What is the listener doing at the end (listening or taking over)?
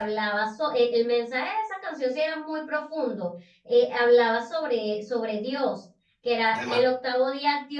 listening